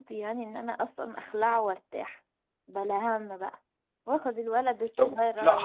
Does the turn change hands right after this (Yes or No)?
Yes